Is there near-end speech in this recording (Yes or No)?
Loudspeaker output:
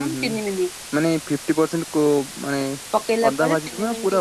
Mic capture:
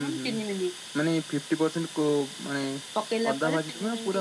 No